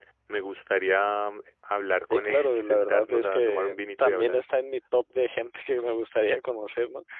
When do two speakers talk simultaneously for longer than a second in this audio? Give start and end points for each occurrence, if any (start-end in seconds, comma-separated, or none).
2.1-4.4